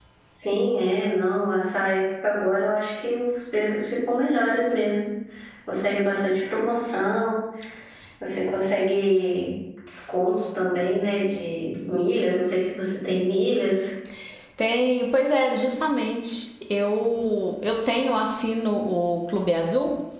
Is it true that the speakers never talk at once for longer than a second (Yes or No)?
Yes